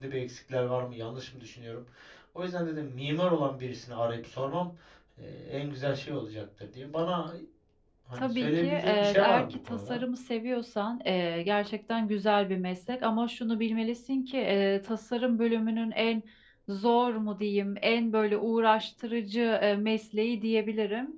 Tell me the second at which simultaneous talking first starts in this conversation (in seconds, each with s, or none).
8.2 s